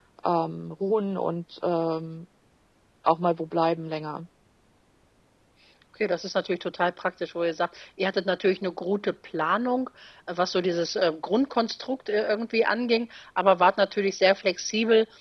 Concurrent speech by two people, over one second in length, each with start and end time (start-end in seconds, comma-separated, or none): none